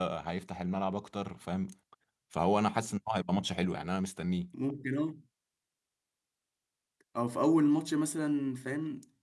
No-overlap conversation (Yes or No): Yes